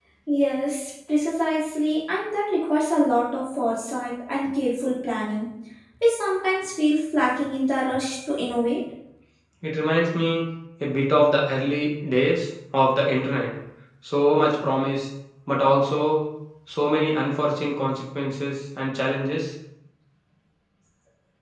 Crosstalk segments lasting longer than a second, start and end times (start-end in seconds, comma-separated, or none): none